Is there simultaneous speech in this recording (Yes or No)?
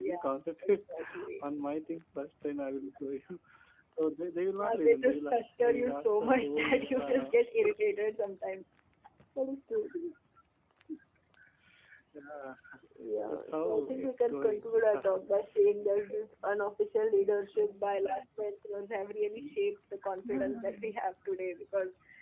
Yes